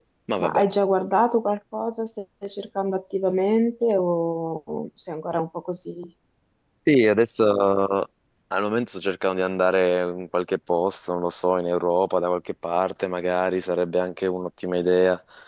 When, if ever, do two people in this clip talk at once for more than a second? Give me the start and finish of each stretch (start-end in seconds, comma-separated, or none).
none